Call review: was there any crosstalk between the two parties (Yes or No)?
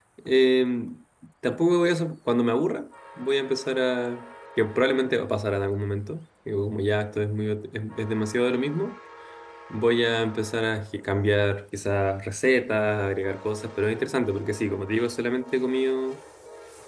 No